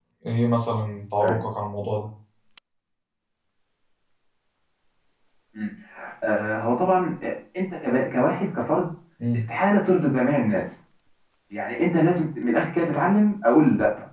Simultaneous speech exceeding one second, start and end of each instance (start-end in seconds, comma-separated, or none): none